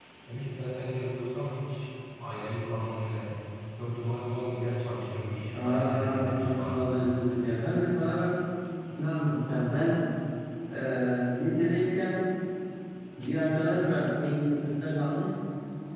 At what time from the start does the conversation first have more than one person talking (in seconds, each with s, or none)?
5.5 s